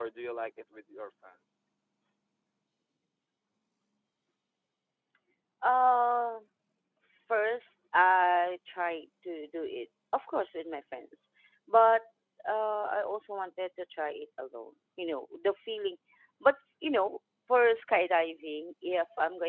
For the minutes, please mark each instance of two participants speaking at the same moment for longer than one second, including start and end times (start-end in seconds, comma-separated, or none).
none